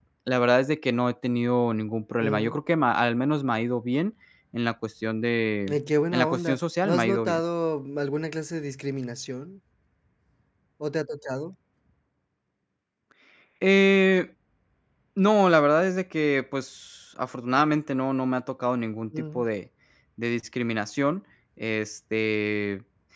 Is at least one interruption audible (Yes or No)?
Yes